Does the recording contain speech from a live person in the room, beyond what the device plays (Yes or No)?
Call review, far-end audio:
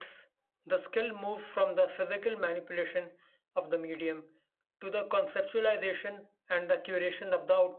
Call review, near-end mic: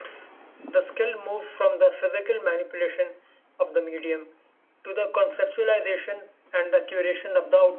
No